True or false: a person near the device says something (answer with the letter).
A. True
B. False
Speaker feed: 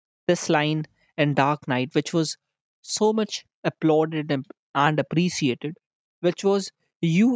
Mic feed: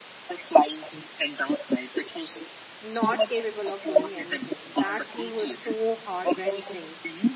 A